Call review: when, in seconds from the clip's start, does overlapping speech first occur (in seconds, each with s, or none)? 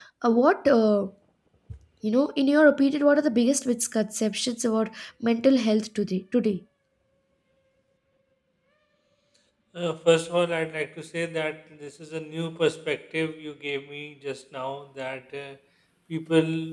none